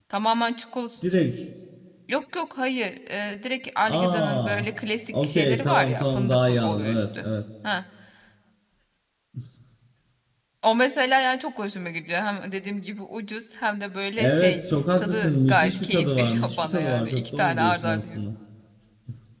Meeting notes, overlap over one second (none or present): present